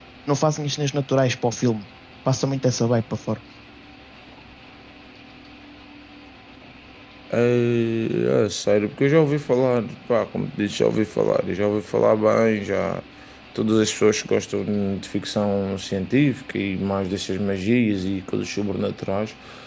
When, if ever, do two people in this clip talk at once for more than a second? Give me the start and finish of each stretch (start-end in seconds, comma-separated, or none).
none